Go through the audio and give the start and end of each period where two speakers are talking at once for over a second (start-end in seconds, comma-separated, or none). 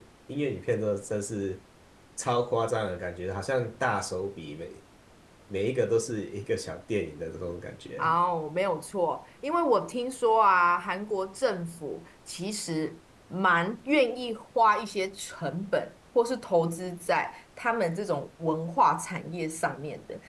none